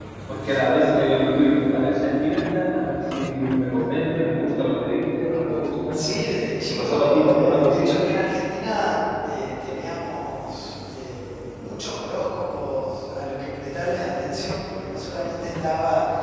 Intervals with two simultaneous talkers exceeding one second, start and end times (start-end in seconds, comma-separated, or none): 6.7-7.9